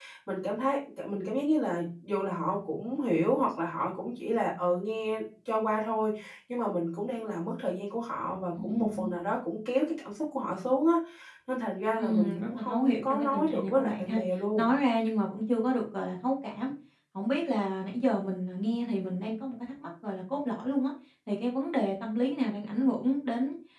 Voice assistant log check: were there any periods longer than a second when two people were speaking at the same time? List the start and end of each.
12.0-14.2

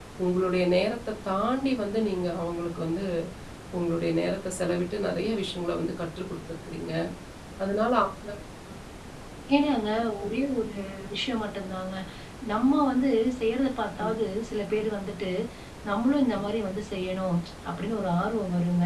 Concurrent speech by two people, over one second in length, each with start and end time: none

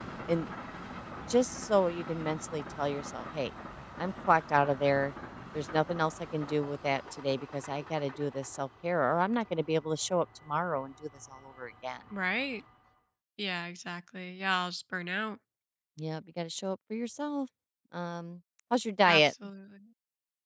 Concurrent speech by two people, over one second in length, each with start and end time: none

